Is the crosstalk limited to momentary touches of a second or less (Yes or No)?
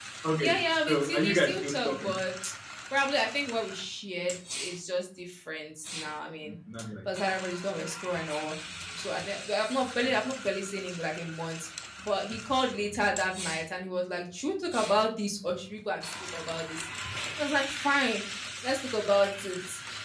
No